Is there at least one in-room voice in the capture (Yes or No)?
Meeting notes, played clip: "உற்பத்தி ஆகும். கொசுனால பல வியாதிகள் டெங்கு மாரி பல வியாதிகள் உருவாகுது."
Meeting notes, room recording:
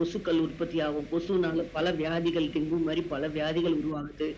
No